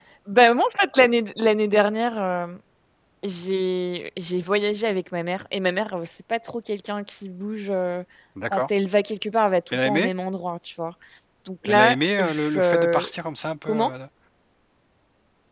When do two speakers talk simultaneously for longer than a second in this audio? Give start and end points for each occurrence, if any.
11.7-13.0

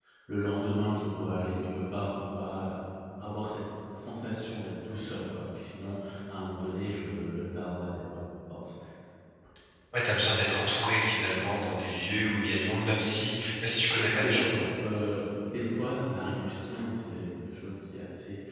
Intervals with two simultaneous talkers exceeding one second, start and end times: none

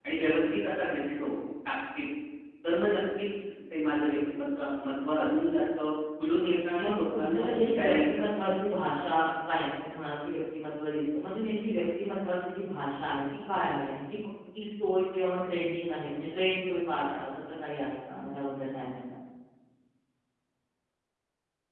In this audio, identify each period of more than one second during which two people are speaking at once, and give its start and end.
6.8-8.4

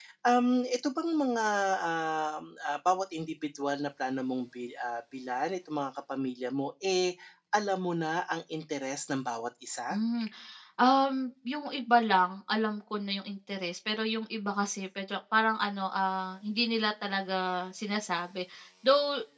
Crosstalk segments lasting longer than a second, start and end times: none

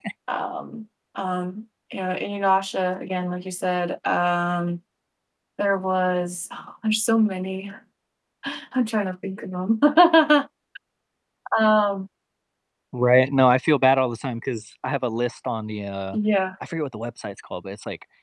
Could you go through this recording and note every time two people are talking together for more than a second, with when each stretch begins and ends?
none

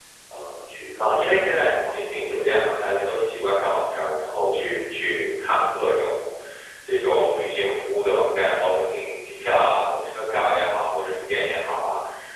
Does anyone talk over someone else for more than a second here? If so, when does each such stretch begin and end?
1.0-2.6

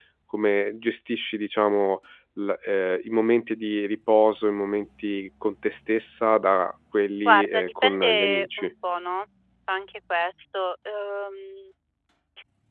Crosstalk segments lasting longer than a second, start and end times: 7.2-8.7

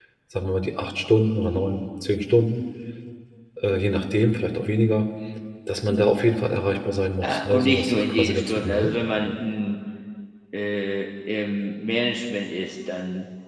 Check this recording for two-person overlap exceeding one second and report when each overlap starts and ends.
7.2-9.0

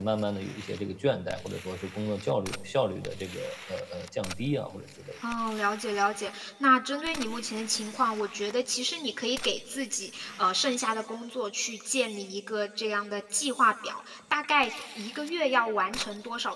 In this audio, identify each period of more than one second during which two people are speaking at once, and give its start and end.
none

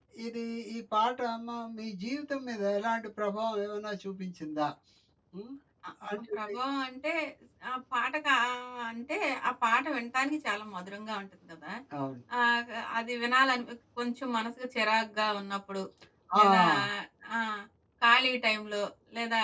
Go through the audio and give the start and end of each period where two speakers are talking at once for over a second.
none

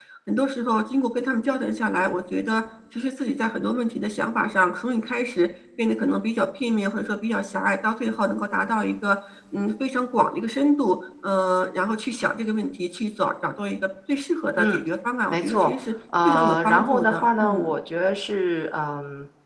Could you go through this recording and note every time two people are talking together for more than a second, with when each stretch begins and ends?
16.2-17.7

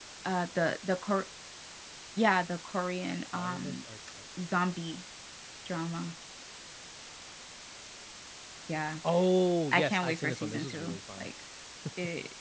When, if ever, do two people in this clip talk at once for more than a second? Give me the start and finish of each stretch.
9.7-11.3

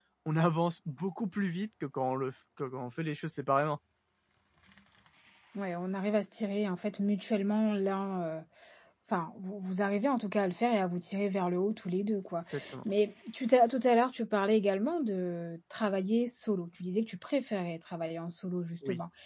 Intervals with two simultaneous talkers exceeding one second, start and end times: none

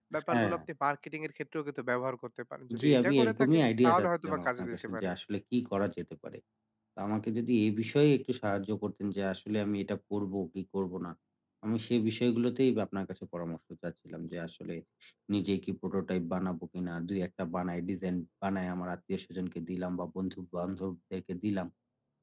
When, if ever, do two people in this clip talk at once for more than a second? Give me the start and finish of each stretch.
2.8-5.1

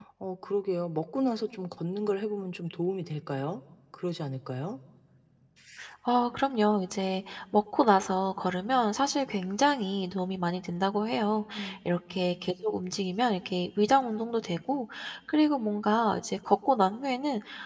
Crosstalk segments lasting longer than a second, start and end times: none

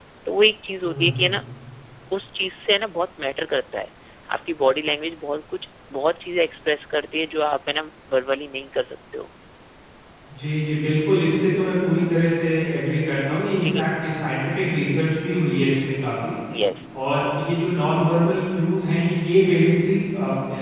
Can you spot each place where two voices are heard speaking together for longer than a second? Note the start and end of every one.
none

